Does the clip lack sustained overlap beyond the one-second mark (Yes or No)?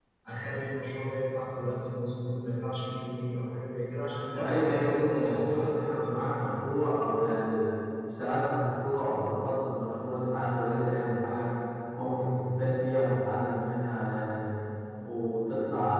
No